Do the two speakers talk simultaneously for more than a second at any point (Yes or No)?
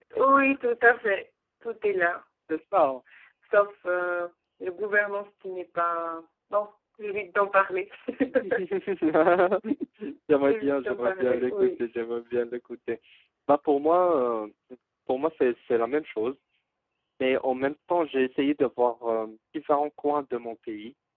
Yes